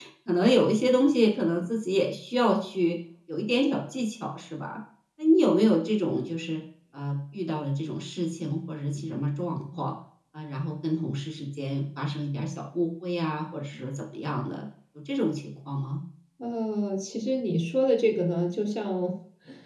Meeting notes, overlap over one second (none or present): none